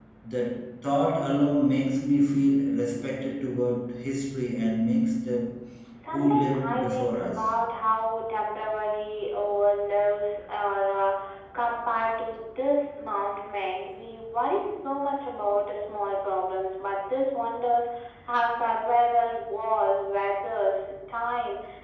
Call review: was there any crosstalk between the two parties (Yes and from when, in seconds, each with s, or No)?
Yes, from 6.1 s